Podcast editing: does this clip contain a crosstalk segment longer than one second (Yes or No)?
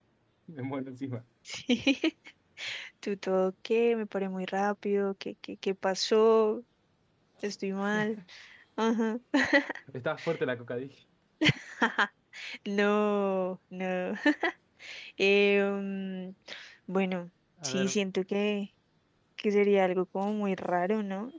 No